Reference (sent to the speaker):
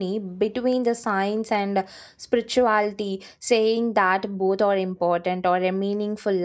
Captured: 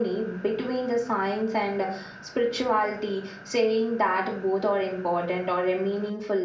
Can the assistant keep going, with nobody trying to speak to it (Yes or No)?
Yes